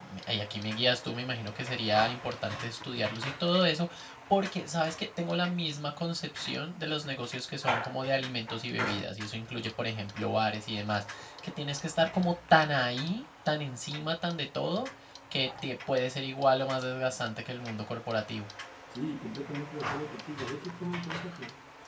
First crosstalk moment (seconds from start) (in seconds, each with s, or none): none